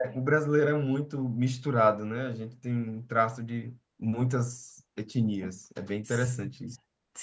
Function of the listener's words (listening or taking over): taking over